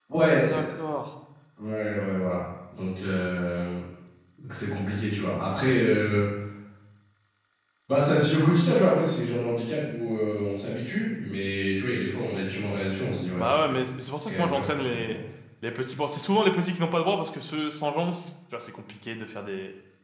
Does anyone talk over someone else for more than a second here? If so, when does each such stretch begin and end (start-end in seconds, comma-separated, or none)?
13.4-15.0